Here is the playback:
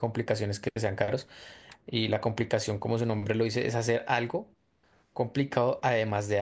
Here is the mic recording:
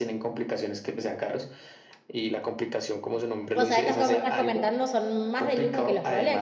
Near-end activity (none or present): present